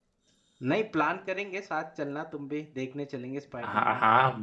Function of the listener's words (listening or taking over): taking over